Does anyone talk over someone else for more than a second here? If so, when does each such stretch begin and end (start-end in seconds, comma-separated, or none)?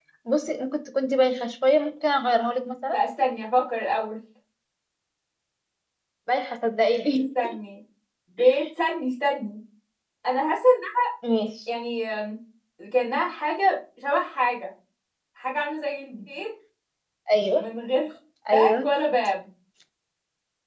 none